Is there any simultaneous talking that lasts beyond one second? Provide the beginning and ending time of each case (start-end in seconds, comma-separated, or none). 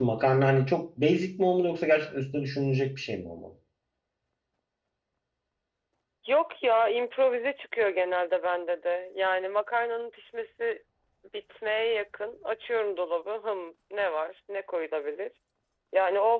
none